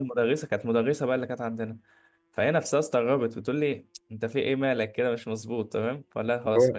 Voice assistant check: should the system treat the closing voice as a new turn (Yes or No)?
No